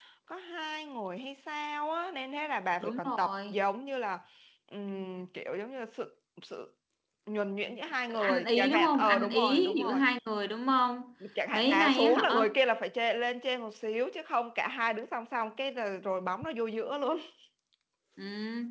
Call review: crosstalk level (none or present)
present